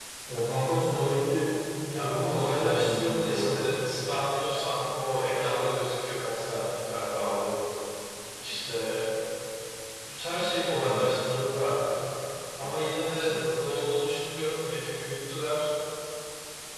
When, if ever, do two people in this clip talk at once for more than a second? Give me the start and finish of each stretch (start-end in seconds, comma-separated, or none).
2.0-3.5